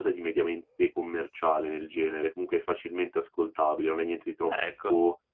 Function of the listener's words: listening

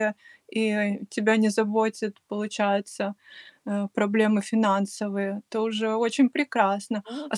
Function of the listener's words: listening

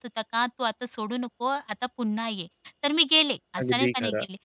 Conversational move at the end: listening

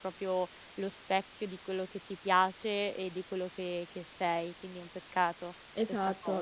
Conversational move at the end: taking over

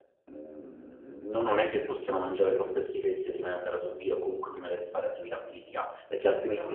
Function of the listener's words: listening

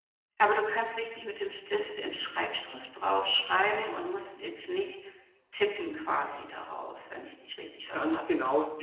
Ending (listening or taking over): taking over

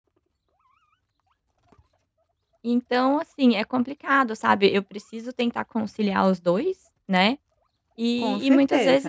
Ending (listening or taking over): listening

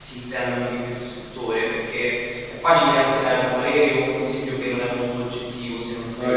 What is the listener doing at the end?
listening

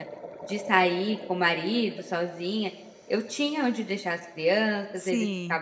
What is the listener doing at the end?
listening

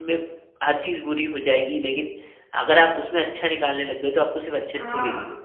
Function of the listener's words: taking over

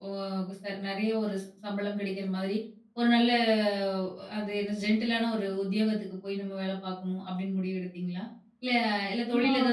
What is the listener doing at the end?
listening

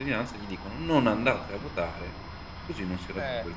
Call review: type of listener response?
taking over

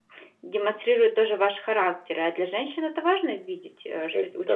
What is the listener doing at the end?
taking over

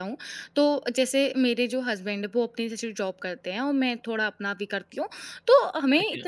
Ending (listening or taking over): listening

